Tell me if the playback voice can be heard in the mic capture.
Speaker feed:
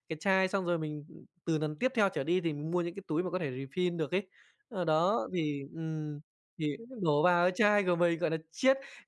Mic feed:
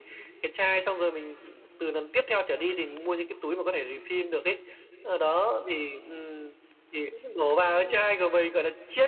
Yes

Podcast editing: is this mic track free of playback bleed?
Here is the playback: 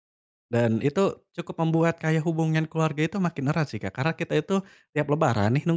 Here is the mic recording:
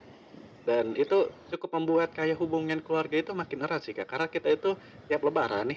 No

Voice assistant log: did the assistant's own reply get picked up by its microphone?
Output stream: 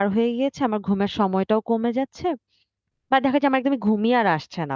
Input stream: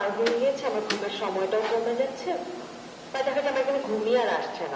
Yes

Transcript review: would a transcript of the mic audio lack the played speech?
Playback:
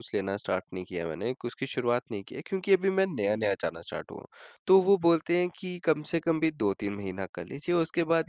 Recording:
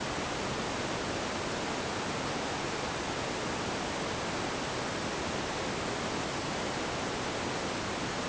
Yes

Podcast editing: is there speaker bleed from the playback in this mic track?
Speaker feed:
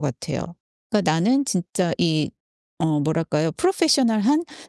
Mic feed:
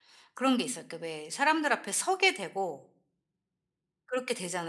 No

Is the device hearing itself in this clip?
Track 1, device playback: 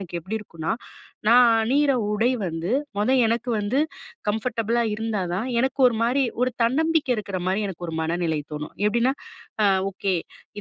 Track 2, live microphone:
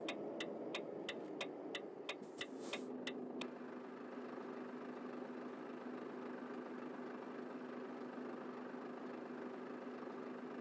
No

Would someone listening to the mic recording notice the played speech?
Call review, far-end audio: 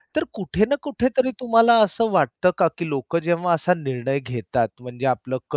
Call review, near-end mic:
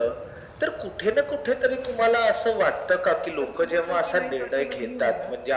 Yes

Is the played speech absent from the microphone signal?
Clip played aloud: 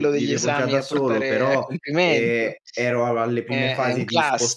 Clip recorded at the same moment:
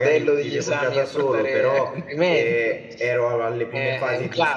No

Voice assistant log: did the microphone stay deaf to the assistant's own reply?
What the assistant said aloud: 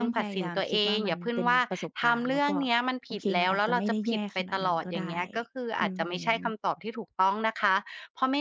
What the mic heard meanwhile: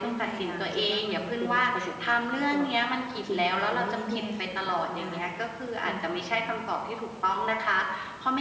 No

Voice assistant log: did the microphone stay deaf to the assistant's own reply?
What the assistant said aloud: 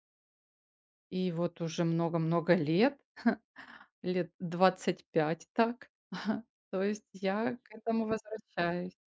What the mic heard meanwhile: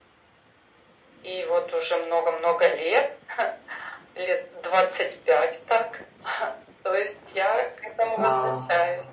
No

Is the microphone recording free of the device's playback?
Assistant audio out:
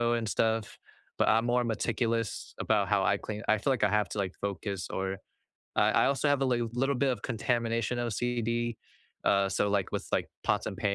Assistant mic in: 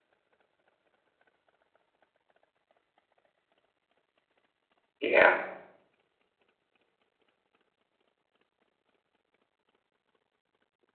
Yes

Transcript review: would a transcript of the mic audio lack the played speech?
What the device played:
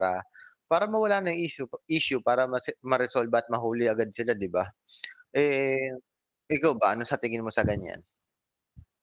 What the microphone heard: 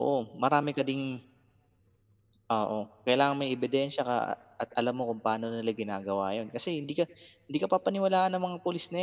Yes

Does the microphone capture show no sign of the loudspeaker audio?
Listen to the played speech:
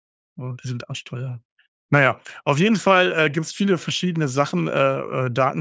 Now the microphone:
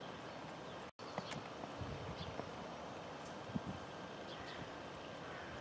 Yes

